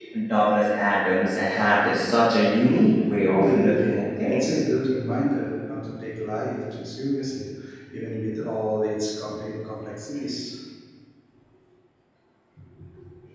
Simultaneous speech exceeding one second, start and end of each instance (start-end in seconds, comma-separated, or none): 3.3-4.6